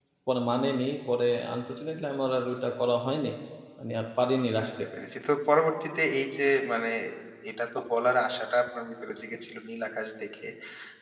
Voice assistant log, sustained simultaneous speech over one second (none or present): none